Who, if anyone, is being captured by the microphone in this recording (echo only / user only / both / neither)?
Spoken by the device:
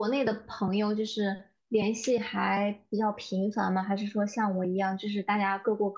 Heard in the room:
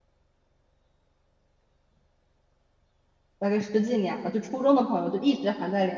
user only